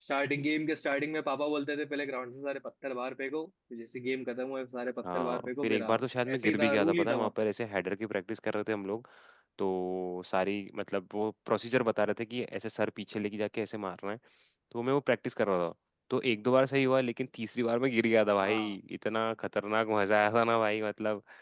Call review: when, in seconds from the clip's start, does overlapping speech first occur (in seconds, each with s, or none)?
5.1 s